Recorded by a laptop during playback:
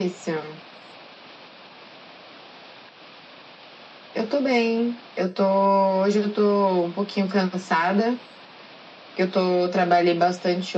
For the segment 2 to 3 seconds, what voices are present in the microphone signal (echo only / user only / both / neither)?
neither